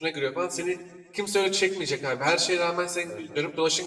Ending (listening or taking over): listening